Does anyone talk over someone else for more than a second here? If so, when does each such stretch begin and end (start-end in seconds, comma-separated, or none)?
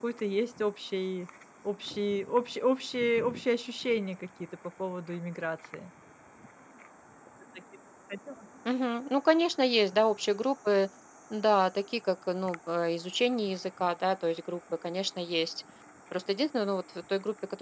none